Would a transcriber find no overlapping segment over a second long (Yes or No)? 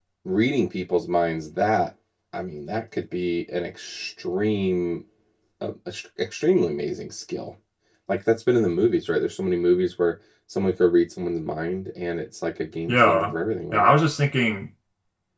Yes